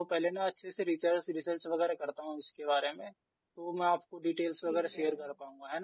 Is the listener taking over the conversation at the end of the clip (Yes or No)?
No